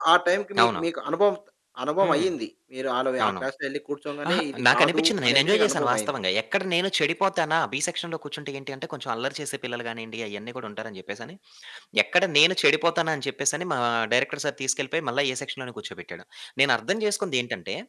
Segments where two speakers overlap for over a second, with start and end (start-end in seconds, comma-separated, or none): 4.3-6.1